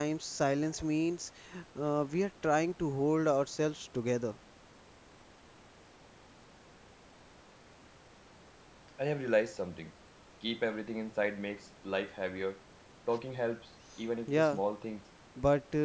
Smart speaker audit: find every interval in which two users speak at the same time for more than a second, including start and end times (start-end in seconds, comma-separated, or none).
none